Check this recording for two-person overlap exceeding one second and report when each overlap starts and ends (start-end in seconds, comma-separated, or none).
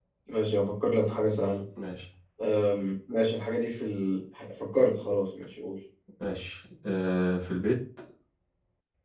none